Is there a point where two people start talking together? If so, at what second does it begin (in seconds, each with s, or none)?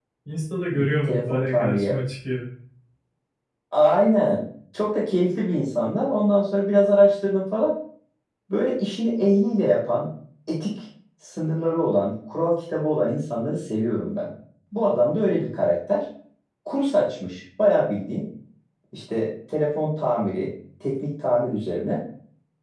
0.7 s